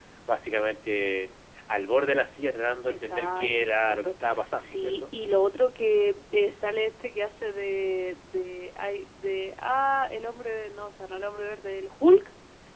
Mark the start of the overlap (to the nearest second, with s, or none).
3 s